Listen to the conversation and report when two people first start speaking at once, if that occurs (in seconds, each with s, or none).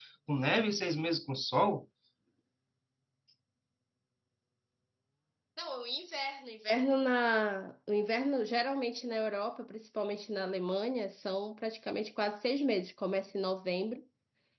none